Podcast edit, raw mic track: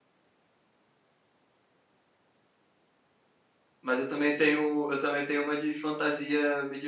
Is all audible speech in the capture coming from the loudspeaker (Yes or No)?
No